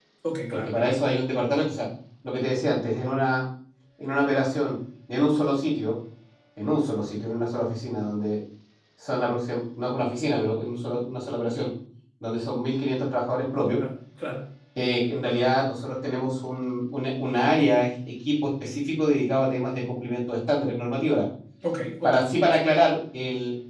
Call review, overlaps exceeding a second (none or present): none